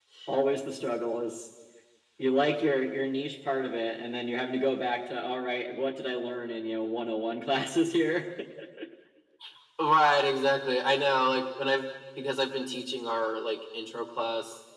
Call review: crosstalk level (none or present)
none